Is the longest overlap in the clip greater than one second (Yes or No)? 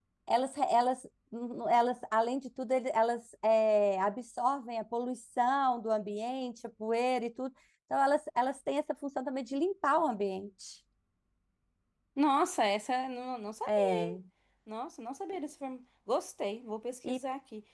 No